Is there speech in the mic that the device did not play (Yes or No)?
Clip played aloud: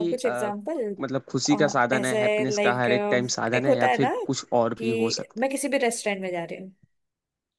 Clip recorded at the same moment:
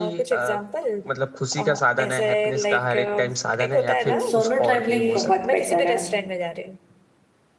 Yes